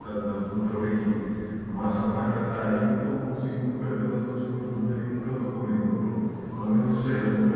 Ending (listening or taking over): listening